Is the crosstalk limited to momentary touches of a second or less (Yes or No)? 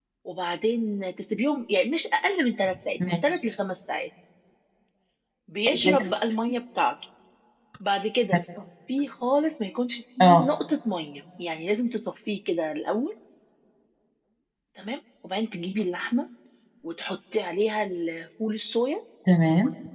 Yes